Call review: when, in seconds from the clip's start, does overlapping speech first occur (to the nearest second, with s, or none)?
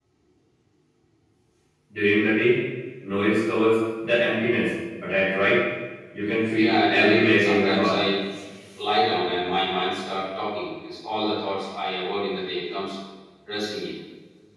7 s